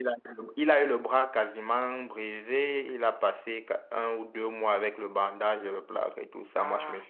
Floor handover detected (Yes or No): No